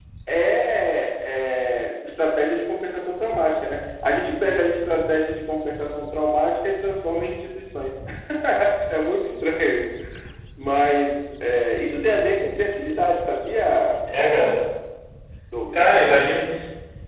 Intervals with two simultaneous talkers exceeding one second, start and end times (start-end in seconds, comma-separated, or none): none